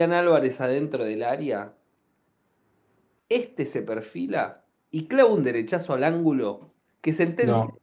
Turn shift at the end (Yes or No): No